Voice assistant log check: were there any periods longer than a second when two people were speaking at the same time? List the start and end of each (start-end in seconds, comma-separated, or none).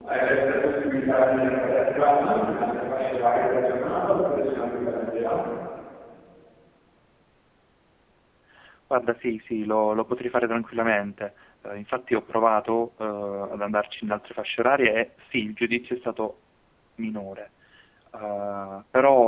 none